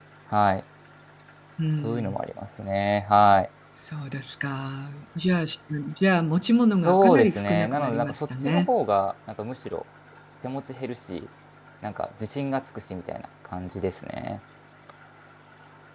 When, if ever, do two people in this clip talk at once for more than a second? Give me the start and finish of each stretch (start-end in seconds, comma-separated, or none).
6.8-8.7